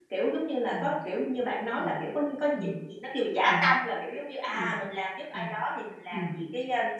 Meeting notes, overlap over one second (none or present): none